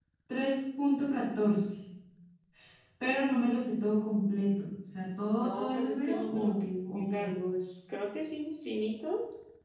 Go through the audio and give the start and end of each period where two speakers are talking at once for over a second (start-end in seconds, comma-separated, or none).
5.4-7.3